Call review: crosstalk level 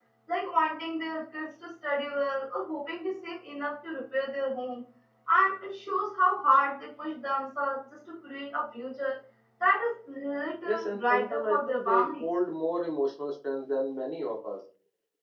present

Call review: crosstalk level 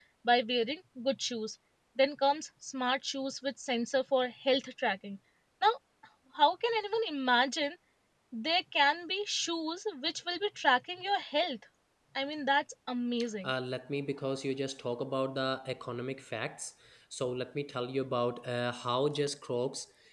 none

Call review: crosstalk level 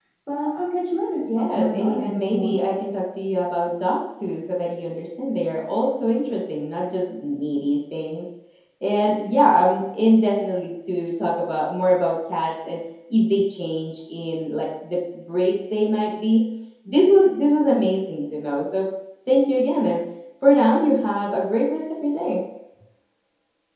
present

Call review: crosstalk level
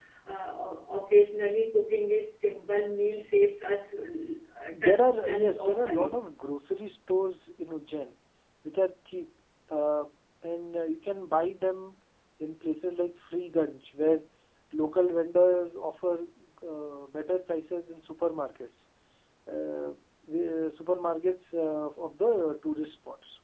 present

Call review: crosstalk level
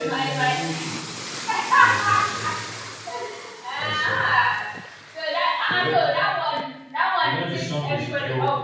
present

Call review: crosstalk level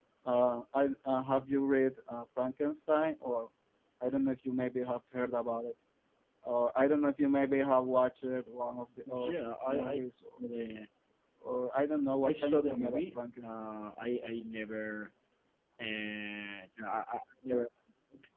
present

